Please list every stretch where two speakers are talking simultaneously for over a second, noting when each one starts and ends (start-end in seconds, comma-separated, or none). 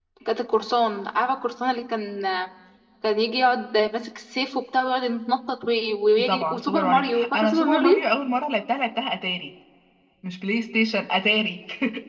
6.2-8.0